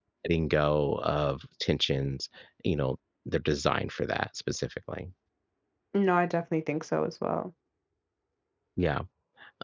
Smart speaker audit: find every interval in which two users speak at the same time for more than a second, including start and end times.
none

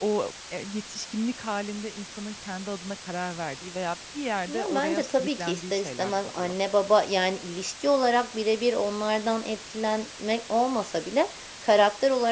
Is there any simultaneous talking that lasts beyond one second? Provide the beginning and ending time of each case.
4.5-6.5

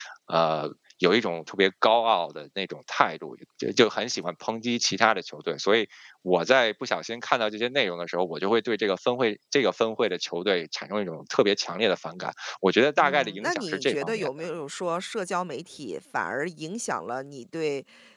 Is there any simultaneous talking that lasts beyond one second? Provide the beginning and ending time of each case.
13.0-14.3

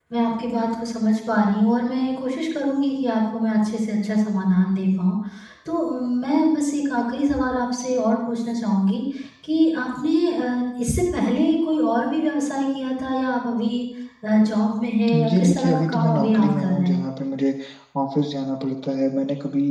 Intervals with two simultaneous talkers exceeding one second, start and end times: 15.3-17.0

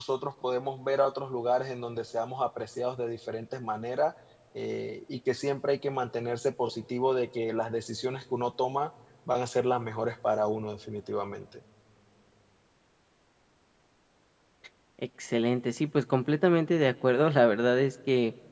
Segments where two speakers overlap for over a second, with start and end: none

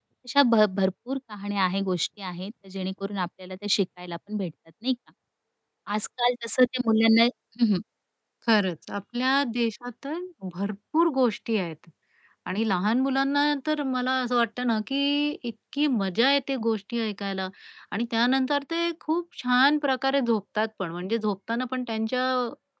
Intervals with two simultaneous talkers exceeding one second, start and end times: none

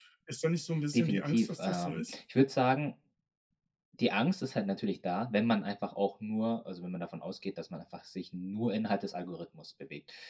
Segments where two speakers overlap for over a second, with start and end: 0.9-2.2

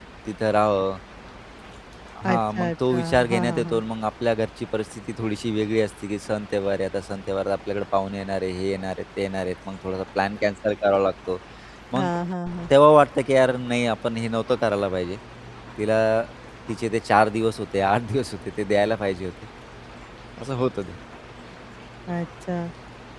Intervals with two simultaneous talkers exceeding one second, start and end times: 2.3-3.8

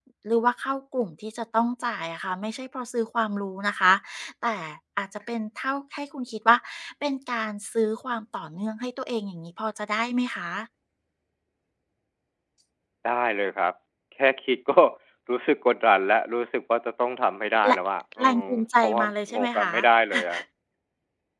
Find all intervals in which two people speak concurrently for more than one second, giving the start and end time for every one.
18.2-19.7

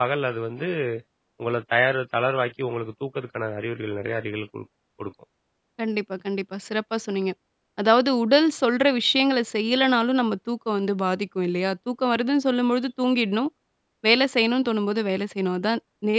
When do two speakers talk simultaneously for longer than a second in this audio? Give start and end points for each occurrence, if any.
none

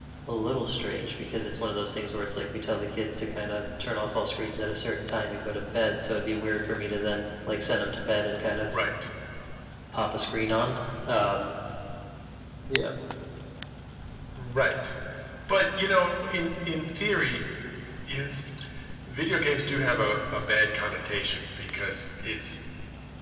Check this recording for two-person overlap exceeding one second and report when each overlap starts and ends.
none

